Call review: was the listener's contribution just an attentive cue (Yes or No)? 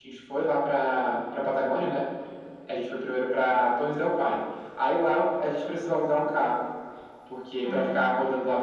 Yes